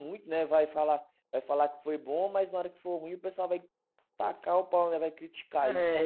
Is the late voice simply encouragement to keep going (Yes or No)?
No